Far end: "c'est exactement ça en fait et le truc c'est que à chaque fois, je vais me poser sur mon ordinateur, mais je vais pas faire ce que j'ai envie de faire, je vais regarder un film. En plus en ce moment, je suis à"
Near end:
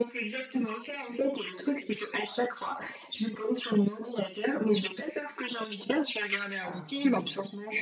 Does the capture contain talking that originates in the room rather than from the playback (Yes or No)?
Yes